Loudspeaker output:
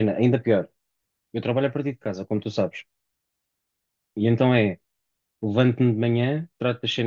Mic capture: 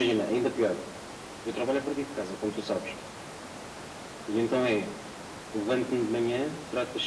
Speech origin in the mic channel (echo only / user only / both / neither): echo only